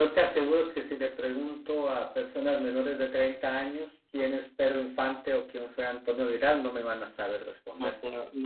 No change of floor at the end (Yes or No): No